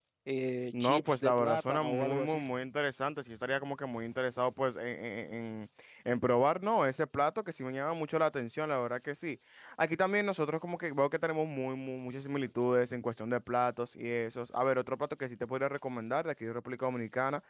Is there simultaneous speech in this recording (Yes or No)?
Yes